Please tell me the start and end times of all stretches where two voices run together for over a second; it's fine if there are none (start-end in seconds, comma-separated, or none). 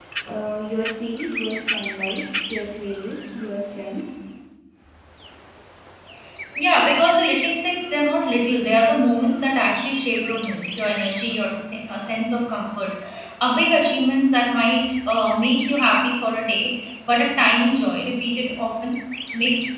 none